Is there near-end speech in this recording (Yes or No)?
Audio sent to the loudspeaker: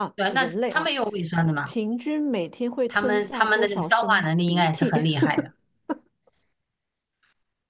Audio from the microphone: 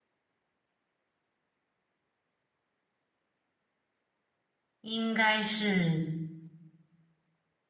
Yes